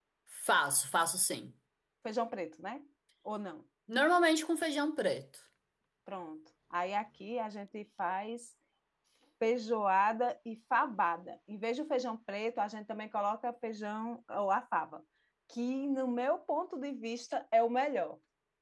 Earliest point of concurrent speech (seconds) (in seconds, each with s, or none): none